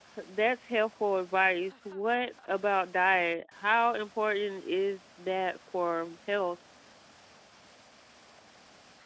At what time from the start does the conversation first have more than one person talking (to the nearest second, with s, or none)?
none